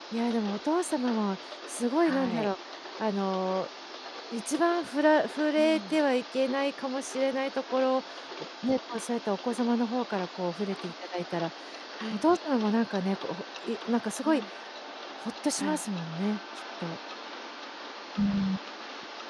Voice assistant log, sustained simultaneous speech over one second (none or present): none